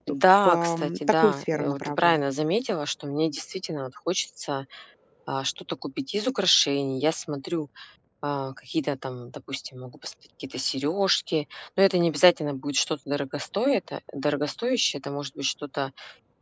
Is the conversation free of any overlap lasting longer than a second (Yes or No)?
No